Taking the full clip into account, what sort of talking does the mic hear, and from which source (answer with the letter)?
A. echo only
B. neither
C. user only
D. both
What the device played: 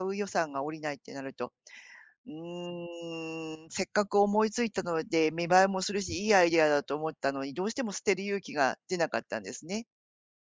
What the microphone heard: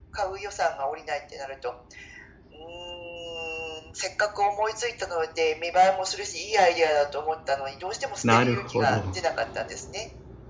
D